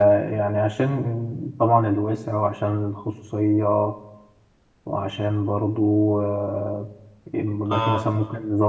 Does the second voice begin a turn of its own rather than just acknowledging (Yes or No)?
No